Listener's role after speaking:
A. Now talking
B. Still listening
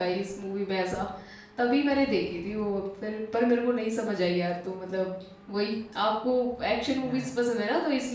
B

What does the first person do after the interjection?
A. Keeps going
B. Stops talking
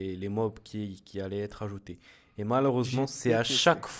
A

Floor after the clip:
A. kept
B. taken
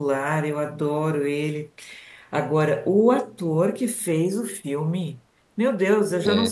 A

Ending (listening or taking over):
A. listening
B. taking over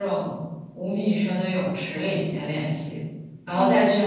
A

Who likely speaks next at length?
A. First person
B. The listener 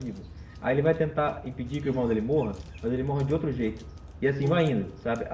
A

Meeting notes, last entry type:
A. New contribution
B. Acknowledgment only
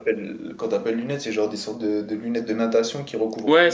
A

